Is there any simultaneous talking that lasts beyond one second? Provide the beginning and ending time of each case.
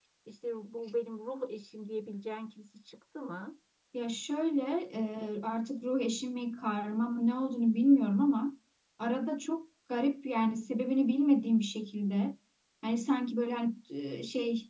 none

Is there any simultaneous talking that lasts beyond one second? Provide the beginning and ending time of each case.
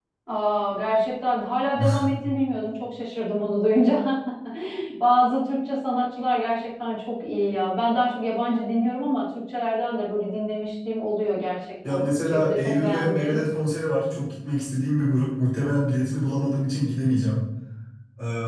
11.9-13.4

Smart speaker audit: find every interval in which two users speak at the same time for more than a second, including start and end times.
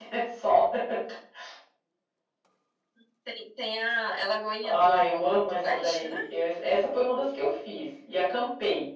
4.6-6.2

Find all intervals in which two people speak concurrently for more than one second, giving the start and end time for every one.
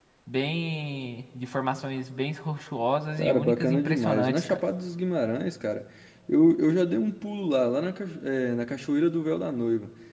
3.2-4.6

